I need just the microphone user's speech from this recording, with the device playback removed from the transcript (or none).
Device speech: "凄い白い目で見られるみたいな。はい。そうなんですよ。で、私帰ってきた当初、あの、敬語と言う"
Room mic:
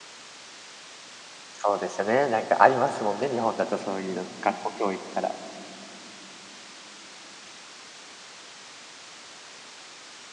そうですよね、なんかありますもんね、日本だとそう言うの、学校教育から。